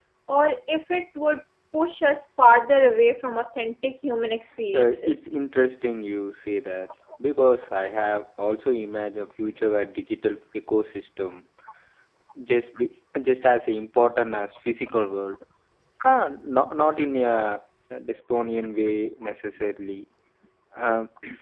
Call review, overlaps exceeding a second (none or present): none